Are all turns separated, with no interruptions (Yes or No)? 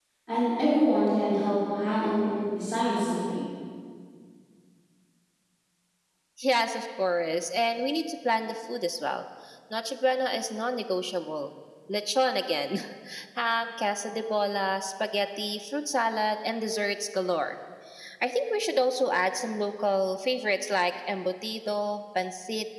Yes